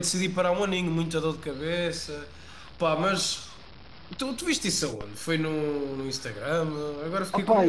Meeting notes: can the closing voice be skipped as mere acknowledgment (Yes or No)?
No